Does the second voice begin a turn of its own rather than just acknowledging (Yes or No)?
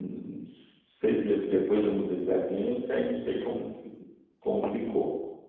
No